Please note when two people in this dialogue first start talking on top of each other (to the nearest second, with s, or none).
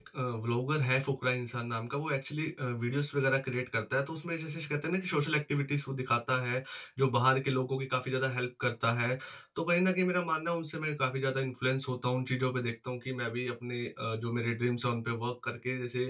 none